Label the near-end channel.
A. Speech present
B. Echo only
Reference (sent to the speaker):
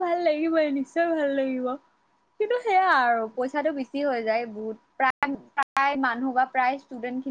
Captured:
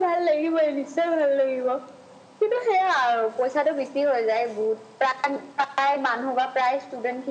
B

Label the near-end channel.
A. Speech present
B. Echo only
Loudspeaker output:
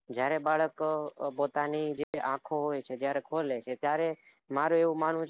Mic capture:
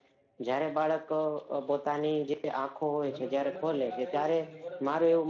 A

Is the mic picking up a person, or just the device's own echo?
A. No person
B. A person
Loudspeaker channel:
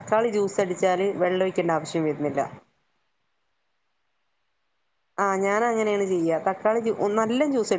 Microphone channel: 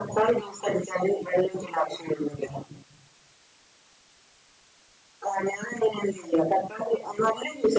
A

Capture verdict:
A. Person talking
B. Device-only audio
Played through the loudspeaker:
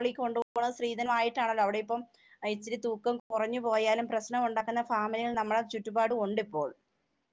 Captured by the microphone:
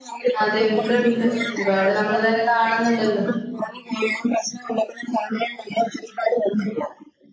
A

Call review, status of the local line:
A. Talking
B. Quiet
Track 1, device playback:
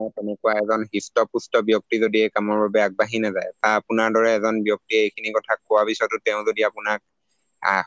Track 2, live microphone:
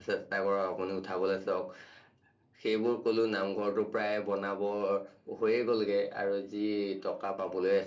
A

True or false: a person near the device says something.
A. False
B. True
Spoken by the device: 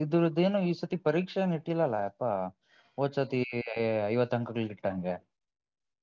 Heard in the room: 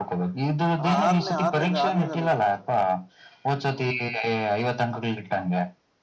B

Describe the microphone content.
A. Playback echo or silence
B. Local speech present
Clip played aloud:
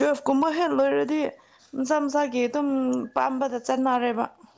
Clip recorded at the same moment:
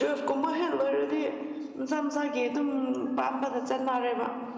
A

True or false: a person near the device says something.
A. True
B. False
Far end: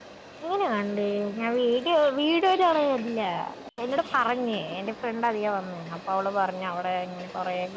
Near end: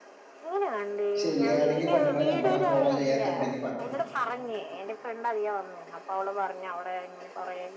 A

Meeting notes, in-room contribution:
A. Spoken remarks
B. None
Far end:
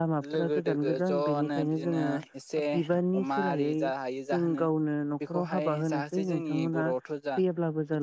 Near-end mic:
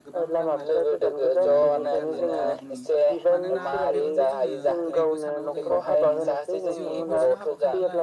A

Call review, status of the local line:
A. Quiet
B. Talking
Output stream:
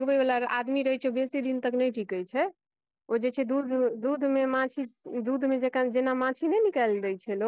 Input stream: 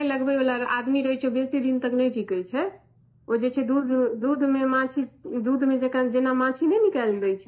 A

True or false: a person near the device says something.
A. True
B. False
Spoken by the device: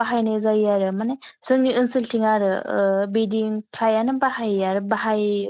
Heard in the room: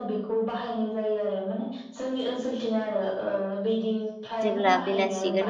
A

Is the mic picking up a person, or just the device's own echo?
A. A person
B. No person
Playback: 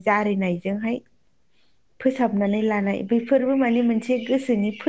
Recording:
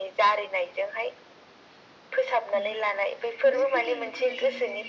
A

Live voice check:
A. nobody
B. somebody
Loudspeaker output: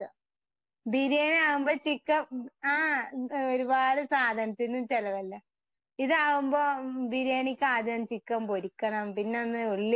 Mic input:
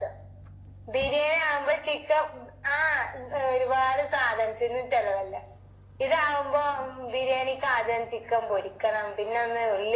A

